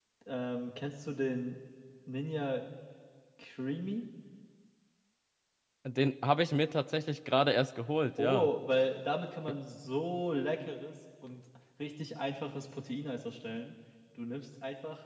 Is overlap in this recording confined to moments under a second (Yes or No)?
Yes